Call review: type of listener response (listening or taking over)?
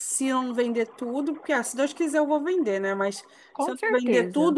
listening